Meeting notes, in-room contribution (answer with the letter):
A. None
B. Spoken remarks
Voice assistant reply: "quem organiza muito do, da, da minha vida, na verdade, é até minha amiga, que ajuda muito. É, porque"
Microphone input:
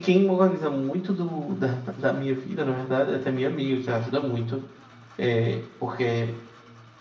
A